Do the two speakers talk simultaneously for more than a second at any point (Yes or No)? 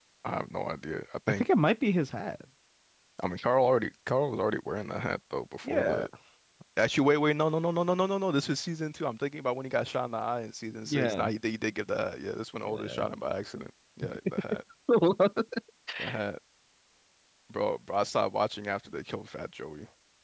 No